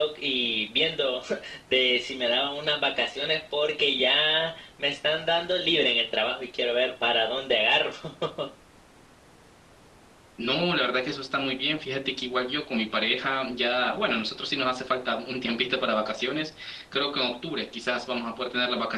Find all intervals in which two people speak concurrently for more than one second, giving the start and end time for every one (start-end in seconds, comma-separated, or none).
none